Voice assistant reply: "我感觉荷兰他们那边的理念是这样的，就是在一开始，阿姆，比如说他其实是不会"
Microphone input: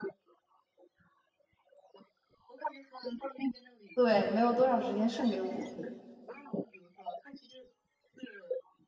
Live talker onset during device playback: 3.9 s

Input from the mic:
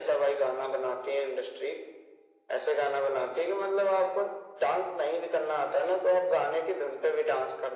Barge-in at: none

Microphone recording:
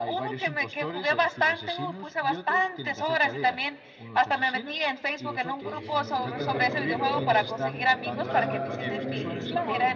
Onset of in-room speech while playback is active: 5.6 s

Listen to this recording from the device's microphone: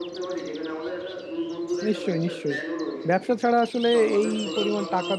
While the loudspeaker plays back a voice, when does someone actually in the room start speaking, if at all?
1.9 s

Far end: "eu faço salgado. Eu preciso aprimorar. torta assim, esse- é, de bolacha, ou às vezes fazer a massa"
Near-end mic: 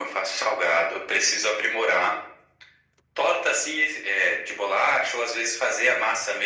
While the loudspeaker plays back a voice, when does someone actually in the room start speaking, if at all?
none

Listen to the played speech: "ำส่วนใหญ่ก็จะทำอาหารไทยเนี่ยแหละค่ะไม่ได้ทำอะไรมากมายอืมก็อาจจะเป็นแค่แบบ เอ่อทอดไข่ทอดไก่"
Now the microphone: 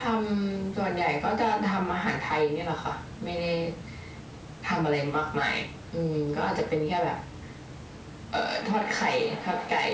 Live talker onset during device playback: none

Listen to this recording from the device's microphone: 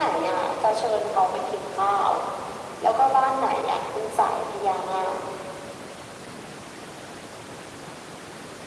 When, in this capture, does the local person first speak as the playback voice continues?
none

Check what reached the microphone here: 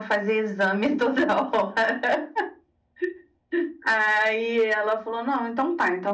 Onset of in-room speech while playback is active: none

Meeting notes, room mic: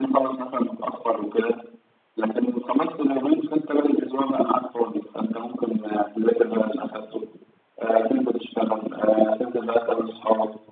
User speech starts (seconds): none

